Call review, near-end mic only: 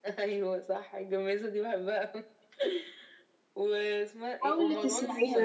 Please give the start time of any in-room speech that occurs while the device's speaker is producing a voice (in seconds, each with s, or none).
4.4 s